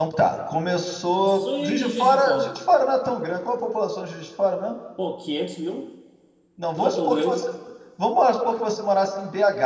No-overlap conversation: No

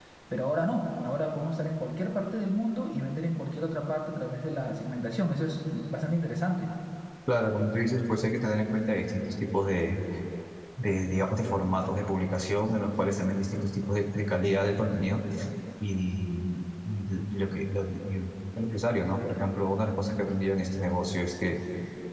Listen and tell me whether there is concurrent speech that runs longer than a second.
No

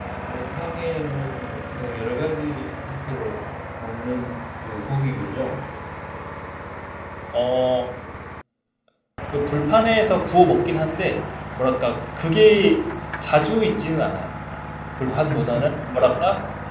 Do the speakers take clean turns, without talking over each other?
No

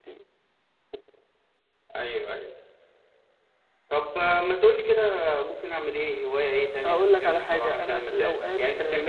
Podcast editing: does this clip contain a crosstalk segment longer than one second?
Yes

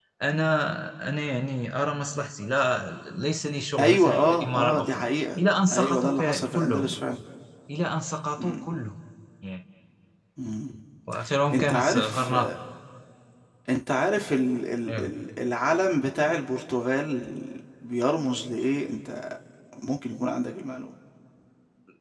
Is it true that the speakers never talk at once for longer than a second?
No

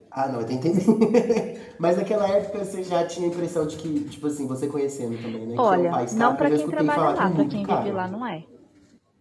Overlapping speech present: Yes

